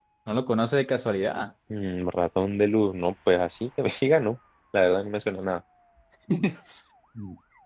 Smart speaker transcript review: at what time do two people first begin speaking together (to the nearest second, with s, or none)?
none